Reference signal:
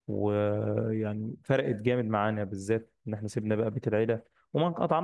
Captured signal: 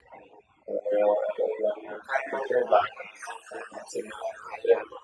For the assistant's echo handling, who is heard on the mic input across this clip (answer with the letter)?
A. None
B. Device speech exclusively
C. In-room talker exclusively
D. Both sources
B